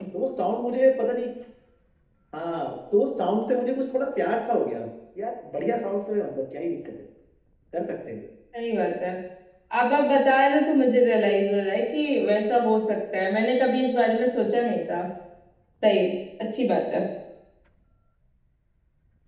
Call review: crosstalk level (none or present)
none